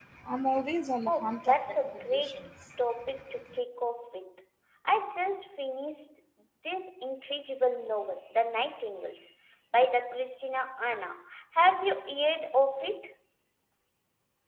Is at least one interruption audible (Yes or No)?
Yes